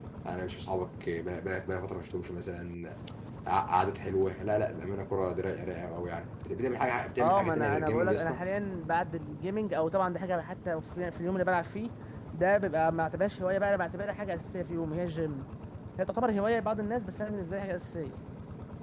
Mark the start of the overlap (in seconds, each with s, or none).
7.2 s